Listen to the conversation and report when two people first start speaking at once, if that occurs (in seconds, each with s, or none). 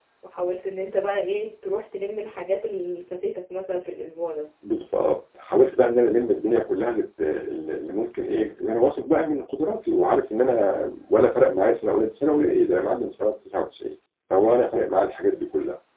none